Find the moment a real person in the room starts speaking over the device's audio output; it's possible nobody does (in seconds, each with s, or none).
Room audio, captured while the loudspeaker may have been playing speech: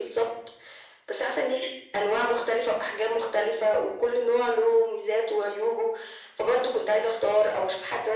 none